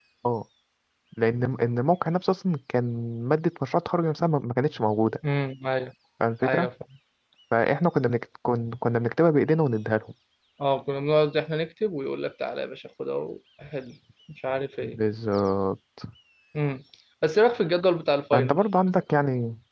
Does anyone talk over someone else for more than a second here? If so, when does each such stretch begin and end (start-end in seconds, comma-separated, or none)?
none